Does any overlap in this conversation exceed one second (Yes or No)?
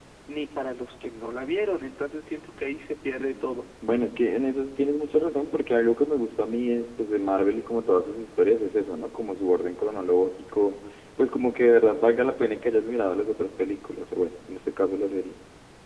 No